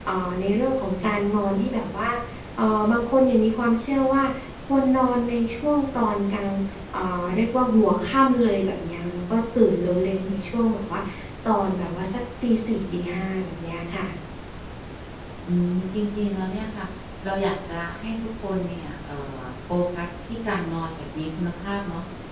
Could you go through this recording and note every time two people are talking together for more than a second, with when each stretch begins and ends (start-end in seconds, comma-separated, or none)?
none